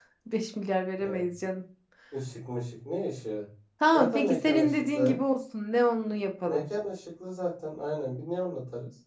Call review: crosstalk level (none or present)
present